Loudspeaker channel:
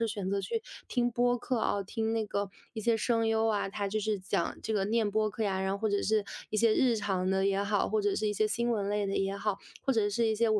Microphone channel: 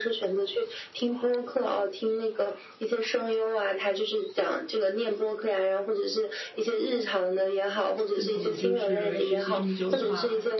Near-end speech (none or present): present